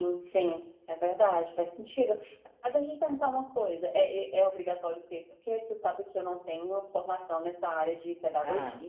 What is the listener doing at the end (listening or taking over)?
listening